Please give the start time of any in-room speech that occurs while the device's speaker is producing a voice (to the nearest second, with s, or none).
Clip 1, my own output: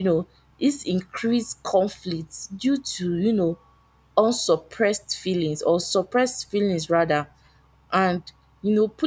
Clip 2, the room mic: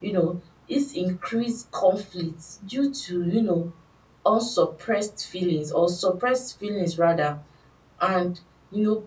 none